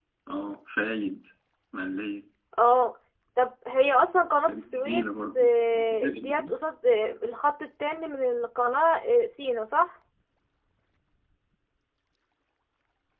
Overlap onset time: 4 s

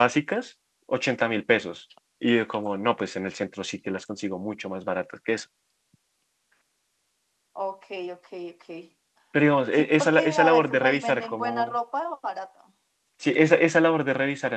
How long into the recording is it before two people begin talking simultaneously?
10 s

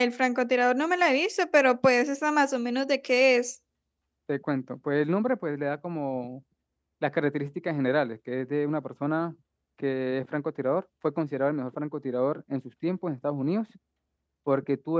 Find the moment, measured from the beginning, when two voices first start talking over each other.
none

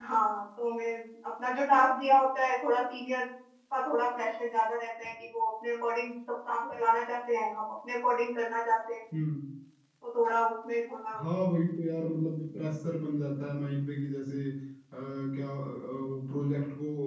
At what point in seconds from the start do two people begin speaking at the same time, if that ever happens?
none

